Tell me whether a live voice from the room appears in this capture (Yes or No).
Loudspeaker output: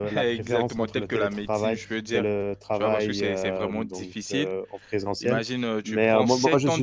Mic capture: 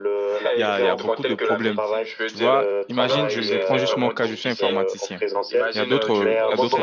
Yes